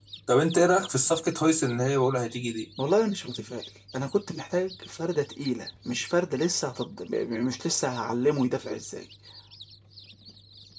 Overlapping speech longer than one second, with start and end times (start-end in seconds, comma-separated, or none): none